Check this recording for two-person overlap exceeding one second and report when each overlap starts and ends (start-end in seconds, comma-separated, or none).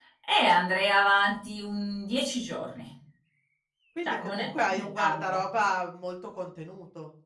4.0-5.4